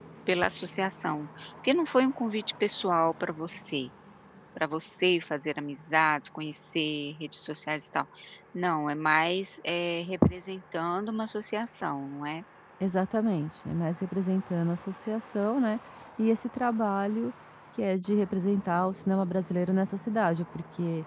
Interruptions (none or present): none